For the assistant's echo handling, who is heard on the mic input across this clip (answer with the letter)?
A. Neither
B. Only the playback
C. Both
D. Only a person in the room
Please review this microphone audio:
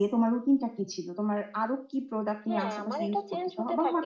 C